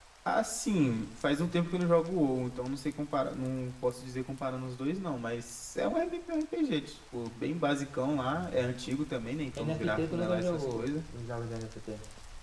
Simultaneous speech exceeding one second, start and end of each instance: 9.6-10.9

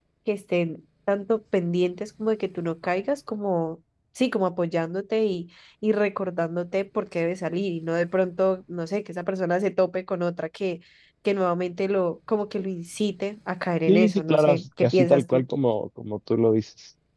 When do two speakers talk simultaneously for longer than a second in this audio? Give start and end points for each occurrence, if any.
13.9-15.4

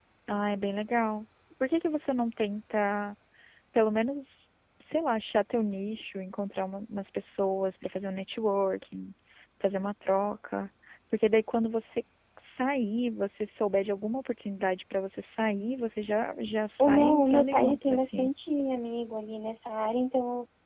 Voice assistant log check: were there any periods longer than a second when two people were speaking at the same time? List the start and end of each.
16.8-18.3

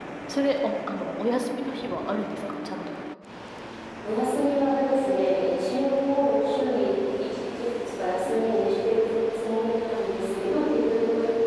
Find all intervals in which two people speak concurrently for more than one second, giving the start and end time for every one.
none

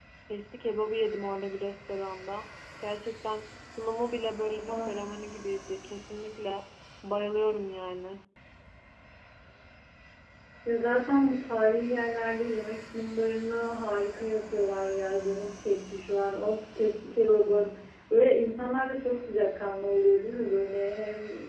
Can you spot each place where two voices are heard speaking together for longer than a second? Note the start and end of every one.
none

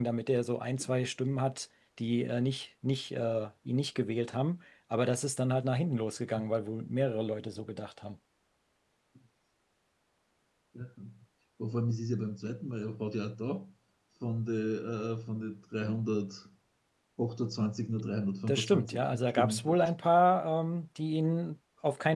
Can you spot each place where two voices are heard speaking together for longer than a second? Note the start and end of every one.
18.5-19.8

